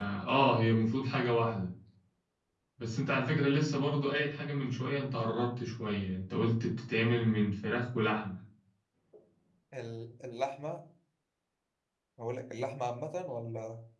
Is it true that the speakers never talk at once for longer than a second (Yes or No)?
Yes